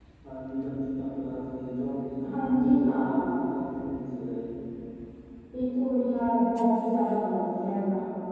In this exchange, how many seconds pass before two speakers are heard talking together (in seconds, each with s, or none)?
2.3 s